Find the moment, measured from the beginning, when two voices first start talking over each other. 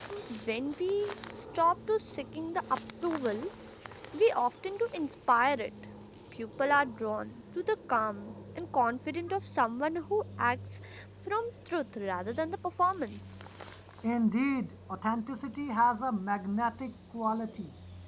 none

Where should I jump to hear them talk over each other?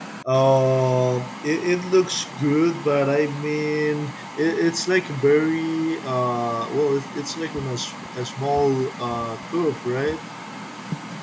none

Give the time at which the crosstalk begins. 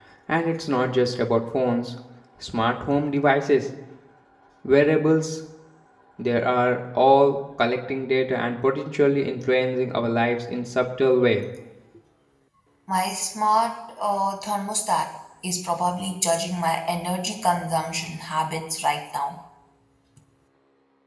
none

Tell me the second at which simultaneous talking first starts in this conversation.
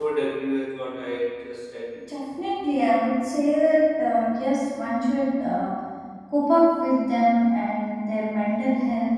none

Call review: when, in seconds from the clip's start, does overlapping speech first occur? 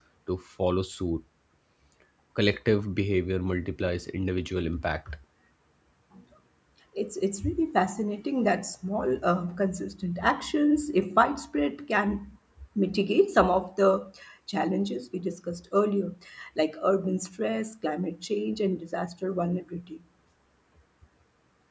none

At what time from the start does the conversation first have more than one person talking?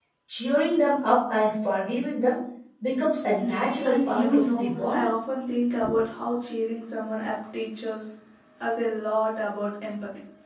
3.4 s

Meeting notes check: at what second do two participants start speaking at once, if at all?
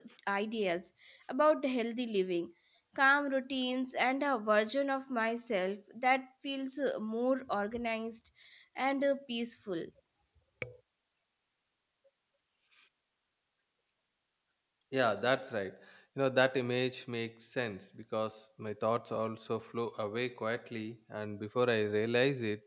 none

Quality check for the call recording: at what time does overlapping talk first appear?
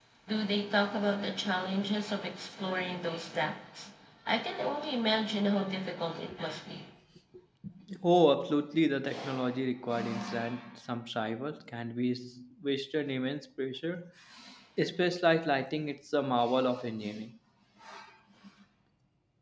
none

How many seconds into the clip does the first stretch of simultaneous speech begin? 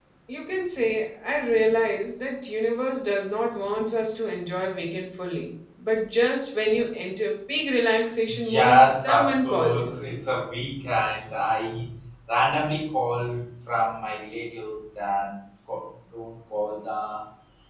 8.3 s

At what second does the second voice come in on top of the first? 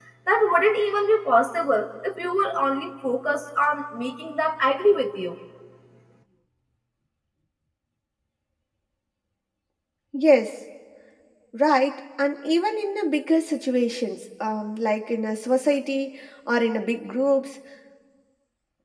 none

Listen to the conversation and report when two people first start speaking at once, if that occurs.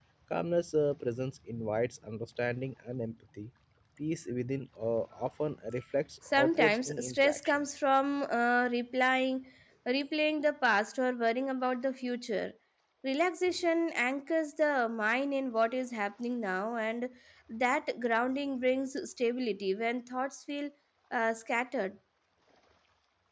6.2 s

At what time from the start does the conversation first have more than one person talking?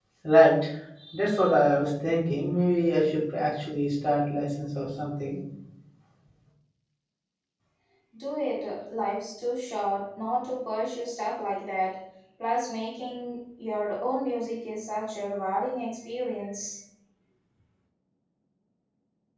none

